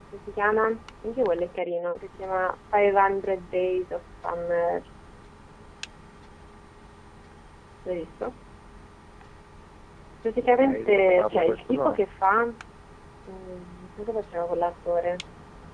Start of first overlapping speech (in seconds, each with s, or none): 10.4 s